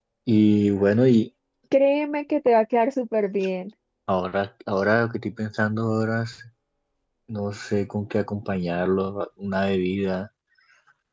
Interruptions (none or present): none